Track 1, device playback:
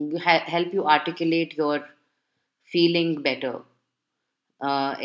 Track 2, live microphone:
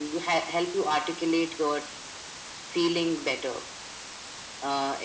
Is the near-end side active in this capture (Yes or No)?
No